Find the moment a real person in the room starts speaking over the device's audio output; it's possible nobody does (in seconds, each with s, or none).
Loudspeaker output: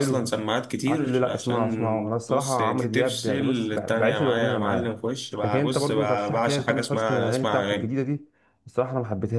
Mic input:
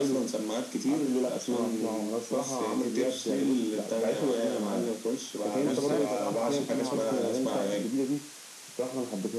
5.6 s